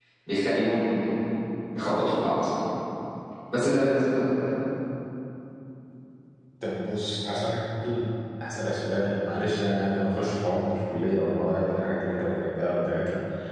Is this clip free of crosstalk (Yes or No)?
Yes